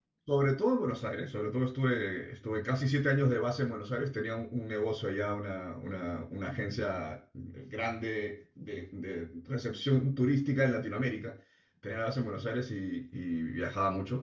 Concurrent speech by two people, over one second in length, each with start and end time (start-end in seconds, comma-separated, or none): none